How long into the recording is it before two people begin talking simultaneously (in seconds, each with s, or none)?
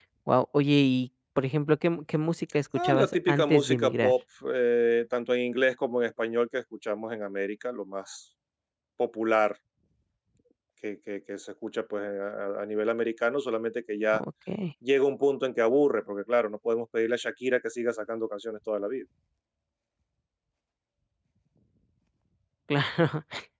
2.8 s